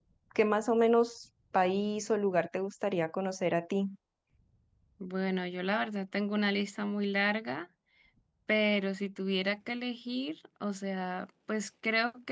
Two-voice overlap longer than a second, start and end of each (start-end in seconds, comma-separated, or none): none